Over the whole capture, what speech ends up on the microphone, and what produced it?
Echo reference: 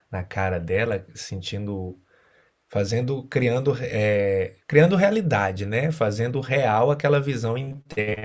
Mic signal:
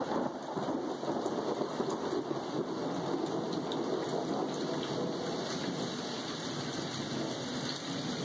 neither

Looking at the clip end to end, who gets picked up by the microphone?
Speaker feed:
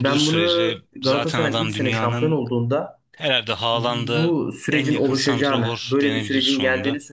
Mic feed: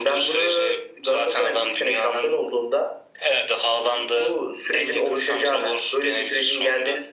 echo only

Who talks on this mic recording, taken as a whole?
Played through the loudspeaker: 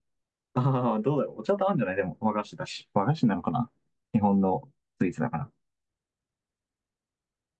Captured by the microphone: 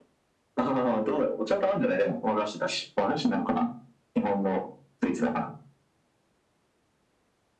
echo only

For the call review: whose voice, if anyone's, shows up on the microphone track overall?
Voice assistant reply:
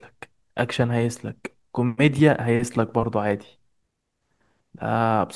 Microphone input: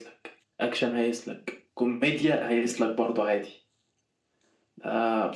echo only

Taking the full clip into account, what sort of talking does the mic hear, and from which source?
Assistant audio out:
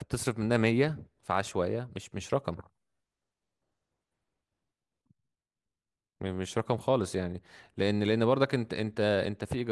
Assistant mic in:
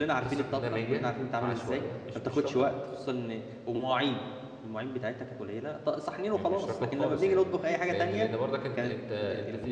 both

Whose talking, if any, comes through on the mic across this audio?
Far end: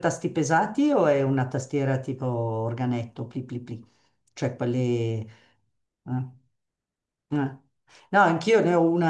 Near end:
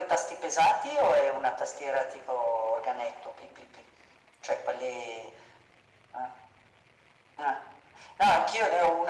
echo only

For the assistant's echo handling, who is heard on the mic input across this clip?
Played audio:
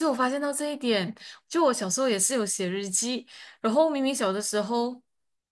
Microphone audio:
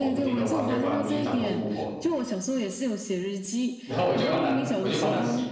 both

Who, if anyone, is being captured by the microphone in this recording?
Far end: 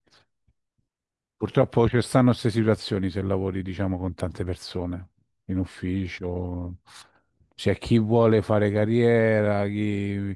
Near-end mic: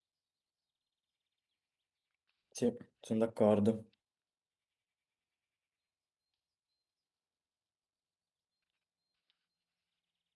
user only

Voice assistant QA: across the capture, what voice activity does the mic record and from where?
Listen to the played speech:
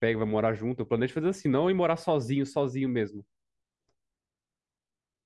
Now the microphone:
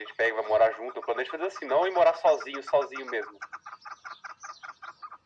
echo only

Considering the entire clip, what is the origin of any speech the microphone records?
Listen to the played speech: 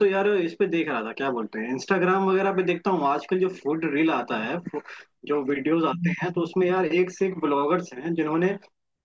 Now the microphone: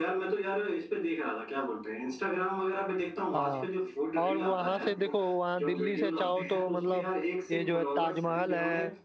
both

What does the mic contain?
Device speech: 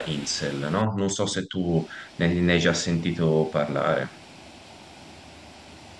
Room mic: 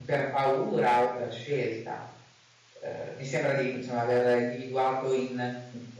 user only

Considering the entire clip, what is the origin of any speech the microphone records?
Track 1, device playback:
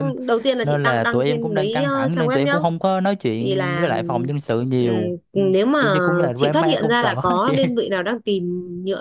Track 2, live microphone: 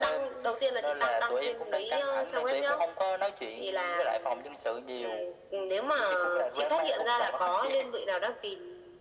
echo only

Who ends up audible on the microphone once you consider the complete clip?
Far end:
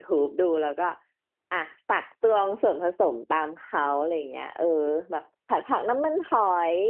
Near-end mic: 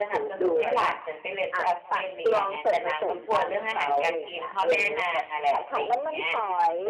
both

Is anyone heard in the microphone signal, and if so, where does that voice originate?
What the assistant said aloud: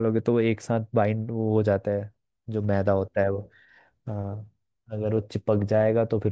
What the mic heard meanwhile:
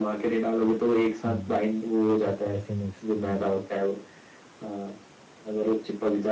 both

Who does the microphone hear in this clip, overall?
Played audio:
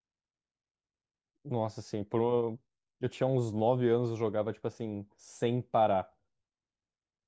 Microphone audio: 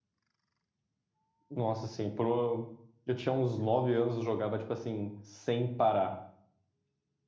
echo only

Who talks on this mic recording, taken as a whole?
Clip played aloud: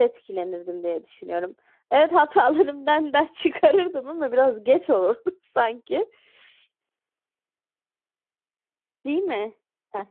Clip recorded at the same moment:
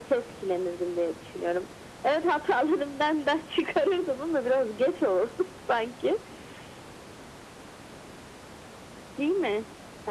echo only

